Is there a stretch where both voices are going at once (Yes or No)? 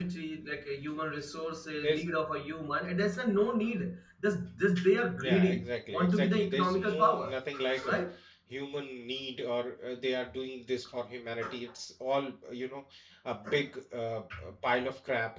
Yes